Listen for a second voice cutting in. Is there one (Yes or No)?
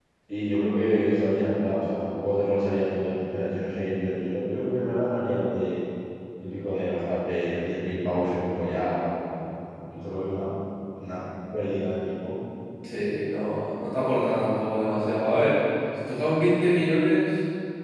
No